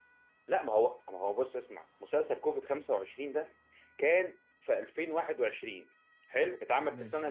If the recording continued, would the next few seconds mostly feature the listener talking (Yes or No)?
No